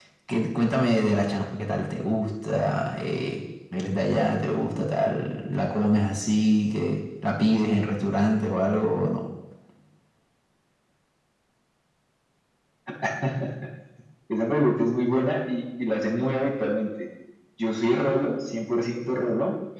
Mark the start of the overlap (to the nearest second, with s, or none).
none